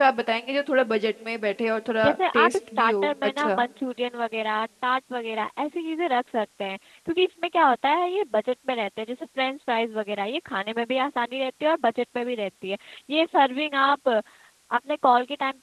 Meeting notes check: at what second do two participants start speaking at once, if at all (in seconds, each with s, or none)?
2.0 s